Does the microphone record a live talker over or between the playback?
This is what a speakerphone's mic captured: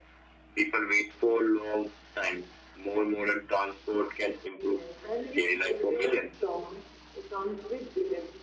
No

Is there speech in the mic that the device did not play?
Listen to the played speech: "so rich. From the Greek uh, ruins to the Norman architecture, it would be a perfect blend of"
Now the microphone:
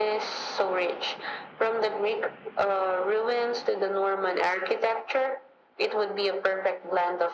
No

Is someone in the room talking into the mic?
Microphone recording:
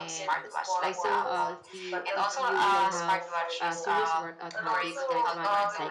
Yes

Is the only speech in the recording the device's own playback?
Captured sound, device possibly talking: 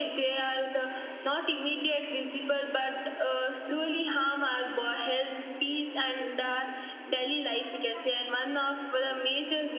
Yes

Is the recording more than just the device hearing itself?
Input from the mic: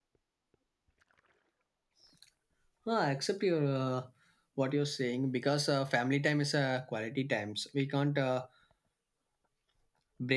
Yes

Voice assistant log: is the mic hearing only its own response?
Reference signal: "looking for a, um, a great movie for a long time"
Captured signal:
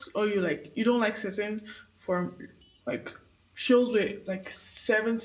No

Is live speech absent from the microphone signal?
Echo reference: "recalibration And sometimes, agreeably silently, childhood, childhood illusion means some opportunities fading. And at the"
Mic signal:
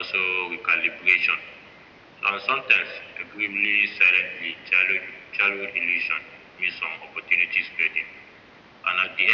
Yes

